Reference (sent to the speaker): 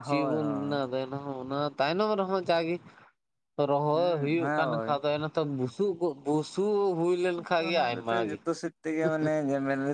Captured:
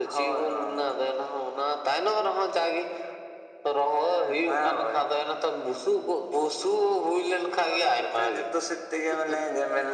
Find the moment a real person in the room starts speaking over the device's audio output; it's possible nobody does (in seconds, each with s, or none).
none